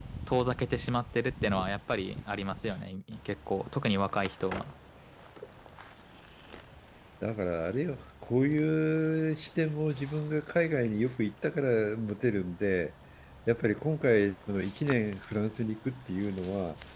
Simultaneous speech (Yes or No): No